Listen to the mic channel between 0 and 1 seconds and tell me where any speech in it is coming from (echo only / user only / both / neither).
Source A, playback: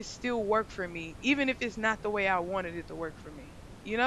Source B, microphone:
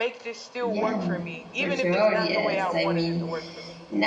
both